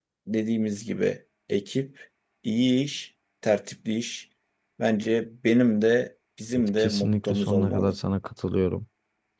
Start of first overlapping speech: 7 s

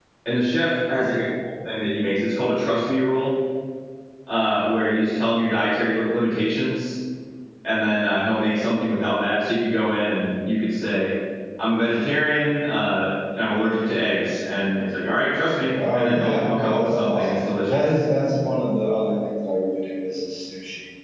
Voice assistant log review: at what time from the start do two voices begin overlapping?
16 s

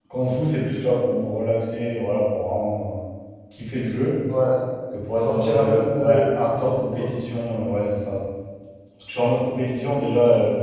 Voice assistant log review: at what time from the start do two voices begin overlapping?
5 s

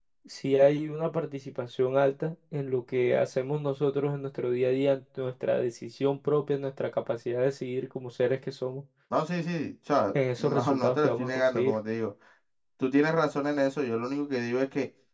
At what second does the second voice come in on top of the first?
10 s

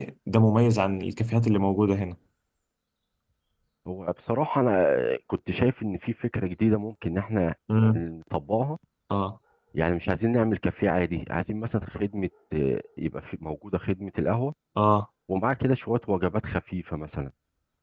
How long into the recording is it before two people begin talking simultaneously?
none

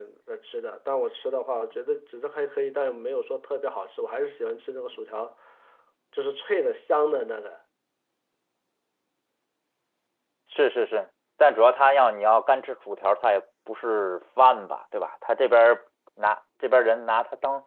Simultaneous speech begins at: none

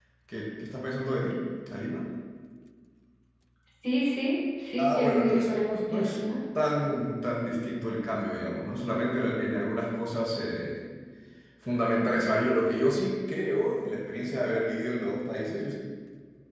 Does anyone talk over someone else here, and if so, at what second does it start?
5 s

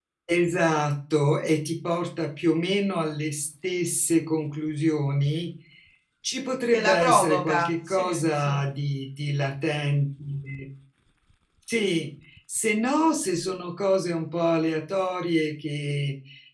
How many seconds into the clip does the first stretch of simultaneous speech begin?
7 s

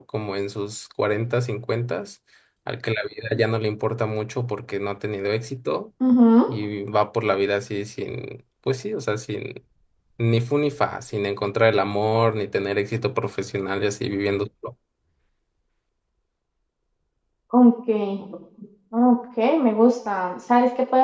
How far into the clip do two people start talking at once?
none

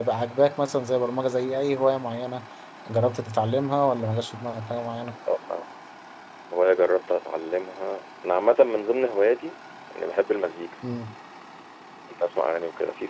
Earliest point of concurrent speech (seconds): none

